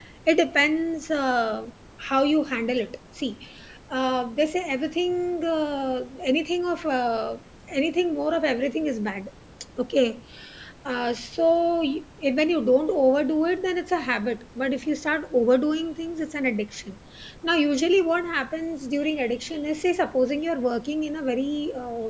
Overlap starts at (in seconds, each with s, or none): none